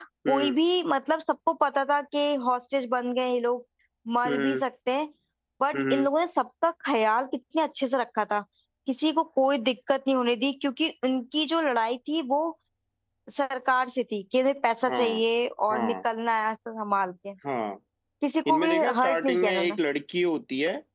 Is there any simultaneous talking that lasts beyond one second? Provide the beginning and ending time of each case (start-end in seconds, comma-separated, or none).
18.5-19.7